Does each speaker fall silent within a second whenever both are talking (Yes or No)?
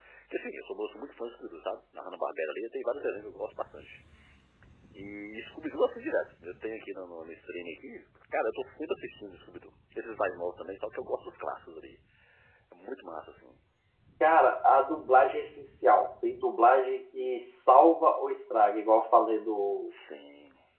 Yes